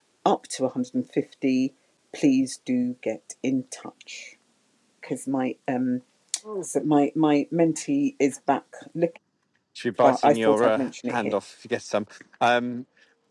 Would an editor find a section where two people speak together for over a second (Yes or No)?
Yes